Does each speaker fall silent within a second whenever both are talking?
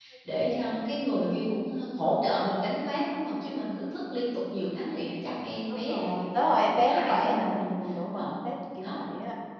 No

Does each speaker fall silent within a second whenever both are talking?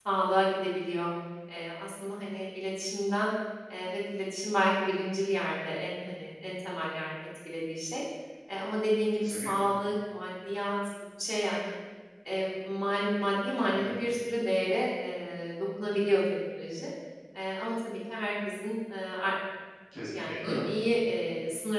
Yes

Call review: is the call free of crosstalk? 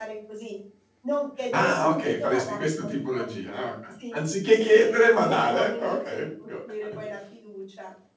No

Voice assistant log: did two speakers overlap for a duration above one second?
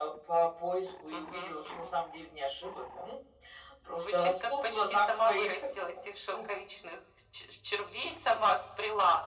Yes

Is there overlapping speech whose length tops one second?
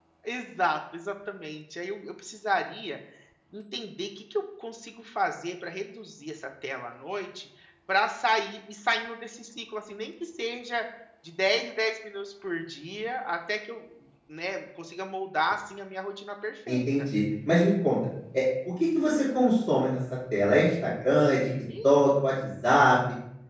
No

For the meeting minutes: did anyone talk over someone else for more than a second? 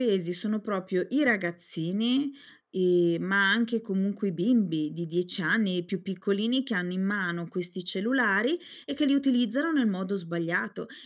No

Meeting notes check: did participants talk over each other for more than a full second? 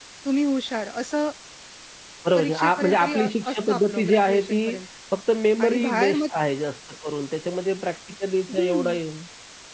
Yes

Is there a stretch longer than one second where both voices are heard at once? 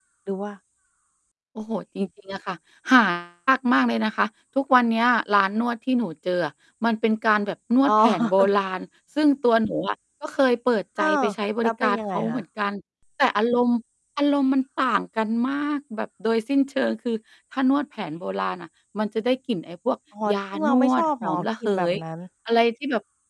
Yes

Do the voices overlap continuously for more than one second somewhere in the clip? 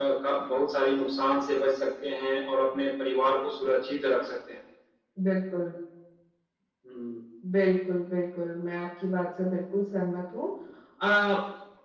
No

